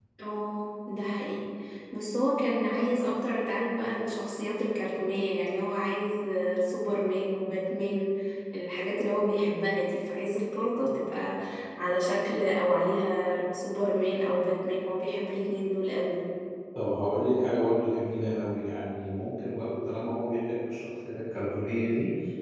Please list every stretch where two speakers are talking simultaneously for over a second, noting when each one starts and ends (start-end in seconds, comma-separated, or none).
none